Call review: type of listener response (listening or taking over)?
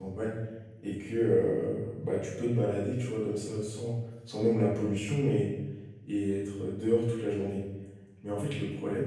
listening